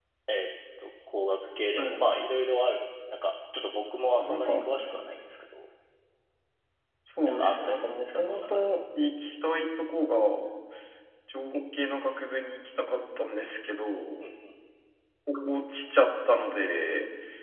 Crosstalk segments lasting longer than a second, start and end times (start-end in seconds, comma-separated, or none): 7.2-8.8